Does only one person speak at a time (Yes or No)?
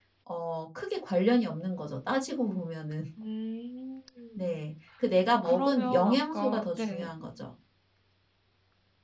No